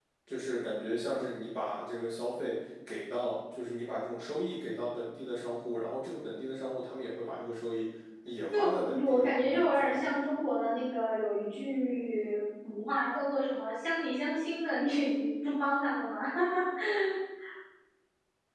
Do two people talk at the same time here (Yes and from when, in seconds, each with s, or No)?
Yes, from 8.5 s